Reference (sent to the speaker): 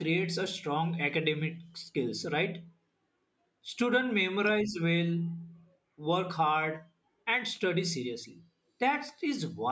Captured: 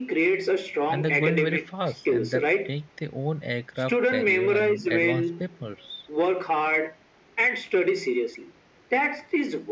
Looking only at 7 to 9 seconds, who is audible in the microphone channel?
echo only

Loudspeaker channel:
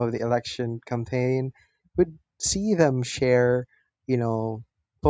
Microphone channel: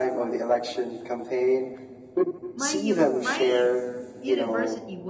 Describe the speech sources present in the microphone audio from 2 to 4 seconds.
both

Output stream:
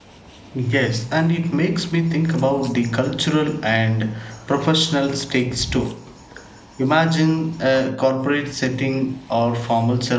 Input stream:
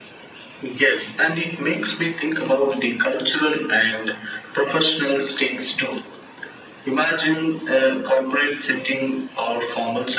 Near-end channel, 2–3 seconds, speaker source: echo only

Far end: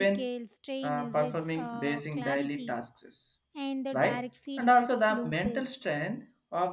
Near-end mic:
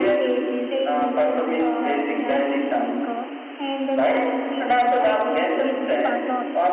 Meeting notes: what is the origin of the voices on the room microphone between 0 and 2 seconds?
both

